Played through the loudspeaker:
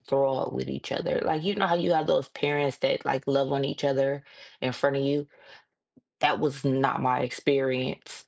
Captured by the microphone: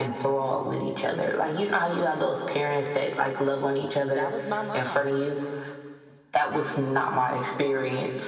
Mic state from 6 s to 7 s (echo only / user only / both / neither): echo only